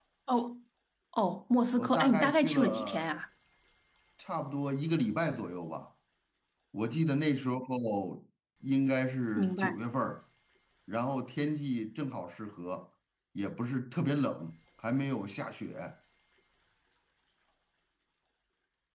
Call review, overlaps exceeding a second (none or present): present